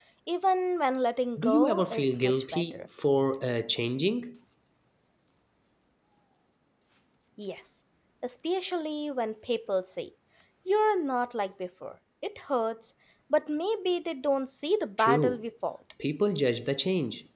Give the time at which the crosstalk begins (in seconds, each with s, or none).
1.4 s